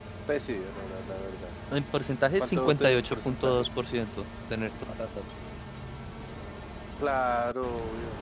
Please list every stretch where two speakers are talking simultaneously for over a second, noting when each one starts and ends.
2.4-3.6

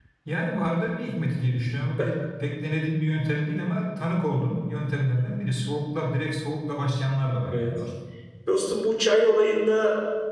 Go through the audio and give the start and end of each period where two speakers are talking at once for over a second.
none

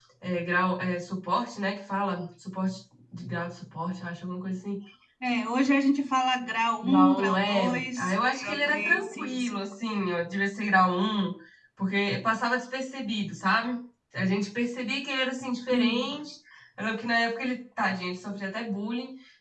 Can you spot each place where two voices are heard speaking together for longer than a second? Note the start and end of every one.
6.8-9.6

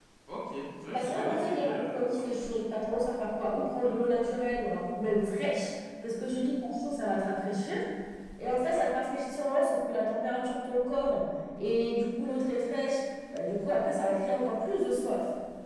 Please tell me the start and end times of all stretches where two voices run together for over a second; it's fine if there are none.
0.9-2.7

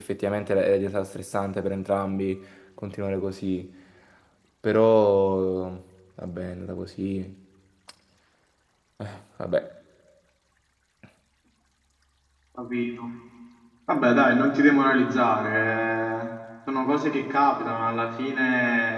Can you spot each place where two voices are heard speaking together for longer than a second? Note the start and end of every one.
none

